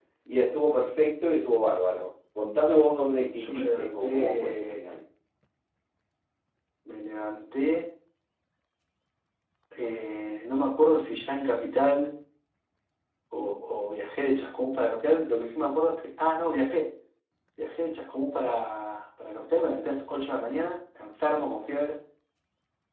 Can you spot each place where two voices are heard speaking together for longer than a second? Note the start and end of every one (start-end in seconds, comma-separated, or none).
3.4-4.8